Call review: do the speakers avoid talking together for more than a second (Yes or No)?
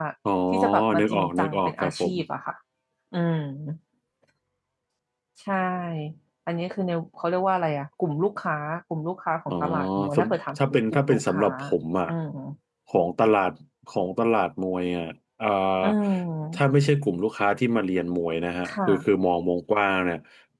No